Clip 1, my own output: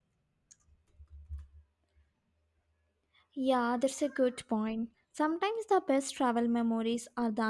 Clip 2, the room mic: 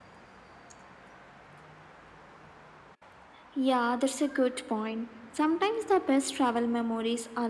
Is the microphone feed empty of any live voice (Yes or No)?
Yes